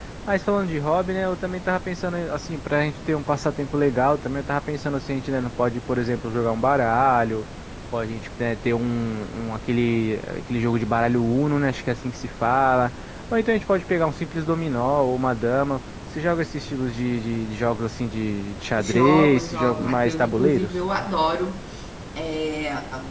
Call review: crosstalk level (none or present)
present